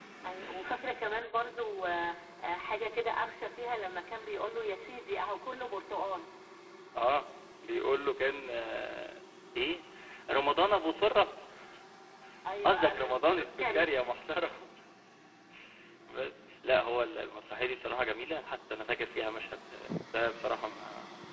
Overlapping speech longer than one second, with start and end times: 12.7-13.9

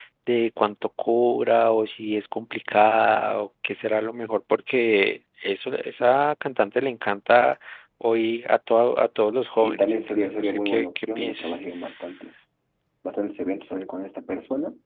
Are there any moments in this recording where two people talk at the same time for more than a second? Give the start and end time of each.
9.5-11.6

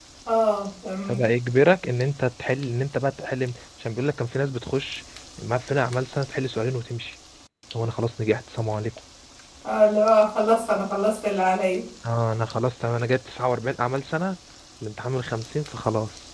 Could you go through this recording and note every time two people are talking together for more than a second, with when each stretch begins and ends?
none

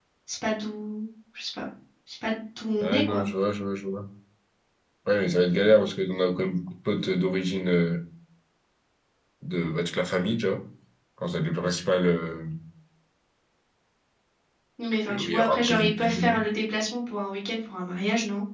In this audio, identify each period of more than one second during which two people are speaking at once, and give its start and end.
15.1-16.4

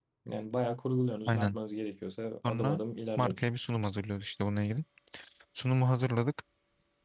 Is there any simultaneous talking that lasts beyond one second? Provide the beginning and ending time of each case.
none

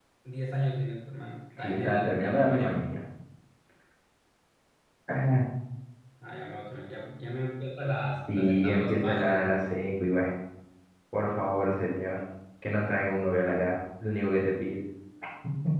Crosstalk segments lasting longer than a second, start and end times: 1.6-2.8, 8.3-9.5

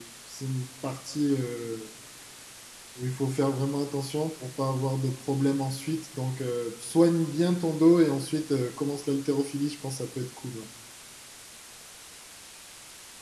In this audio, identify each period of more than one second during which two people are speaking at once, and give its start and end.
none

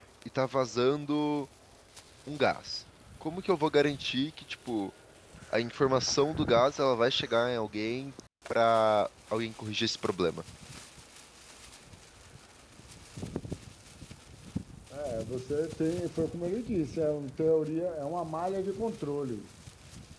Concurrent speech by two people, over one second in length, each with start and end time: none

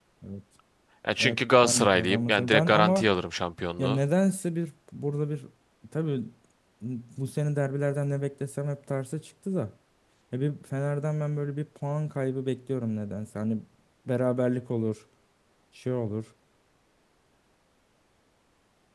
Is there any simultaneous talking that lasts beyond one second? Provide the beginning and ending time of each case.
1.2-3.1

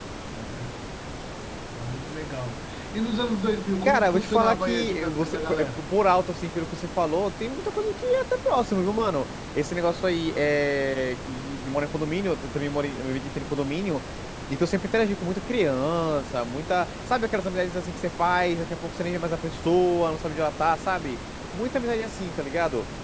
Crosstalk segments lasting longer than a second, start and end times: 3.8-5.8

